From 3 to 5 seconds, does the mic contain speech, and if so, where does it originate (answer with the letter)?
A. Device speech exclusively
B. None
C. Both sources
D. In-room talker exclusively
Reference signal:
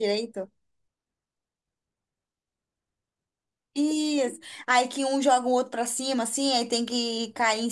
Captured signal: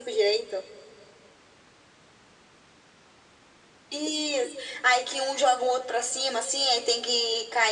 A